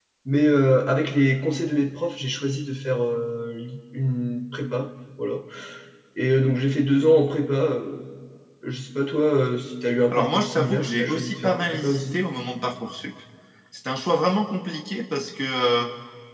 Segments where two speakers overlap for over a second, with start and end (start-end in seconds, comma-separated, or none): 10.1-12.2